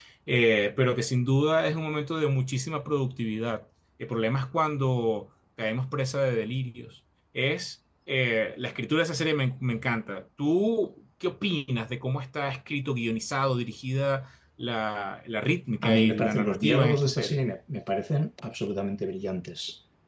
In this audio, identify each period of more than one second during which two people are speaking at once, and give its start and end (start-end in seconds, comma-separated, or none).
15.8-17.4